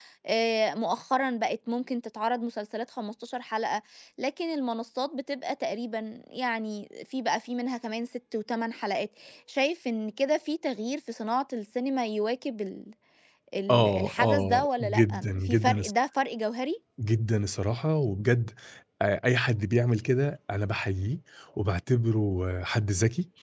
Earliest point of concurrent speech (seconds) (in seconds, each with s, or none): 13.7 s